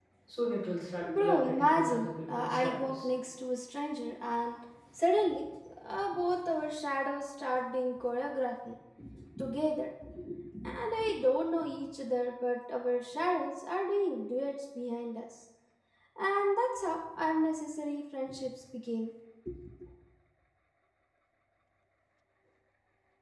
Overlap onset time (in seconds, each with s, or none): 1.2 s